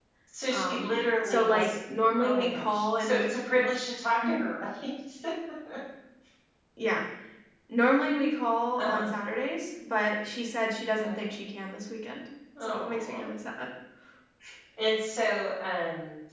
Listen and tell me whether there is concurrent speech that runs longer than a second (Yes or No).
Yes